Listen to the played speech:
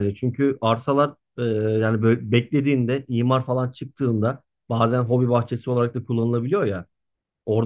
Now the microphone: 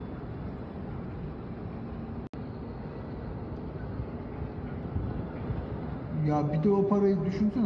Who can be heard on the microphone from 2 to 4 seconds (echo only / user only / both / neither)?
neither